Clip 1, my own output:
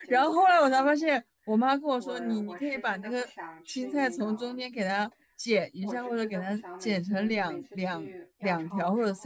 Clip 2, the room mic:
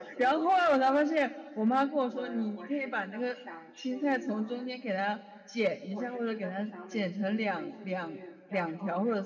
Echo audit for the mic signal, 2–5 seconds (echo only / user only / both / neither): echo only